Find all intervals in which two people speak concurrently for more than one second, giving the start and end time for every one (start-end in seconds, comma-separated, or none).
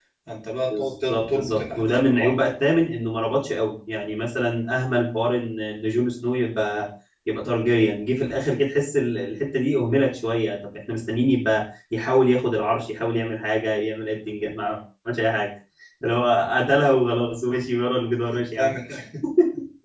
0.7-2.3